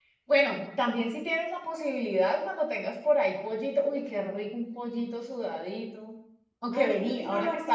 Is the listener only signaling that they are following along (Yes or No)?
No